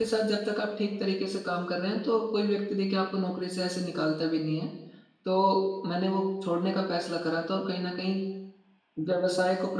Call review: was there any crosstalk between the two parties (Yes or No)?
No